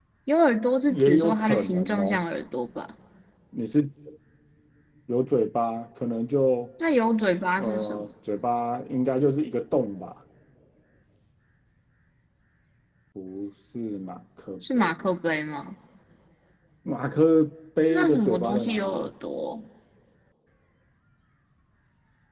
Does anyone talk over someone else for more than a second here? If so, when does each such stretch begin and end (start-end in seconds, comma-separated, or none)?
0.9-2.2, 17.9-19.1